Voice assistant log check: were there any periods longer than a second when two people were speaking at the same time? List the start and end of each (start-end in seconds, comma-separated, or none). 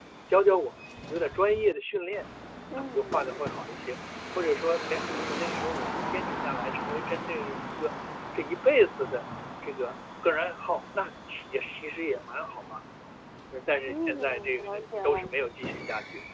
13.9-15.3